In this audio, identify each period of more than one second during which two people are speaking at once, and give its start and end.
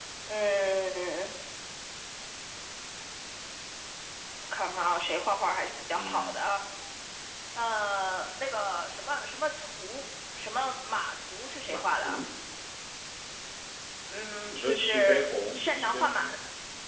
14.5-16.4

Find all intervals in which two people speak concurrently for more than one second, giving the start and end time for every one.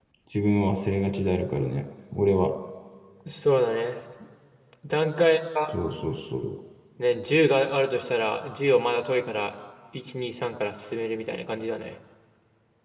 none

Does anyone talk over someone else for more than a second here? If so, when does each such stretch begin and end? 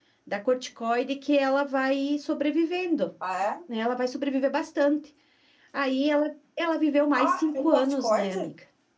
7.2-8.5

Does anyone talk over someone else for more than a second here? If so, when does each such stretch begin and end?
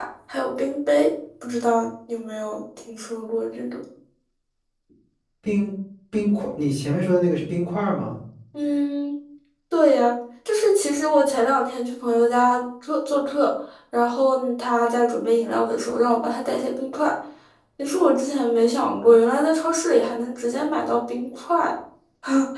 none

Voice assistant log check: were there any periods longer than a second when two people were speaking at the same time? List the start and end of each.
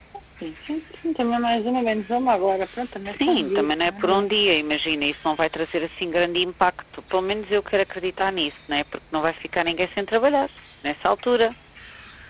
3.0-4.3

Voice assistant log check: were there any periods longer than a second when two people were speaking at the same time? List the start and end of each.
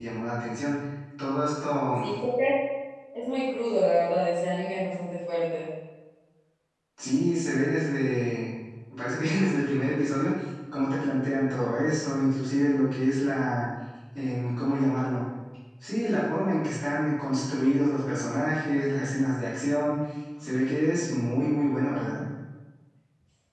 none

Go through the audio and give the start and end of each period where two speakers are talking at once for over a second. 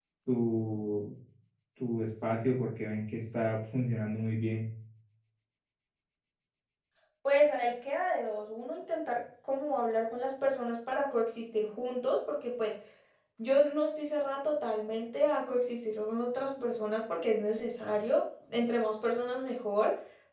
none

